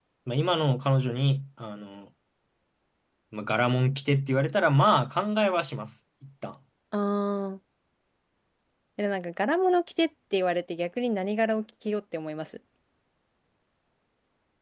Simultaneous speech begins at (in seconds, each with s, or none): none